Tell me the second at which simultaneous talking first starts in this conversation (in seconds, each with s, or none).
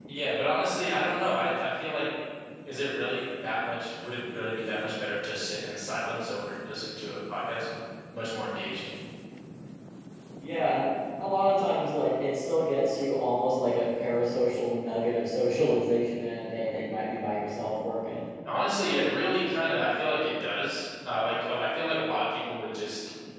none